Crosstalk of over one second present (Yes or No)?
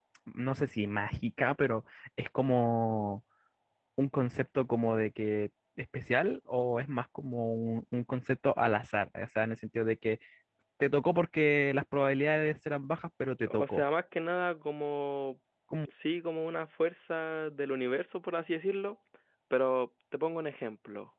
No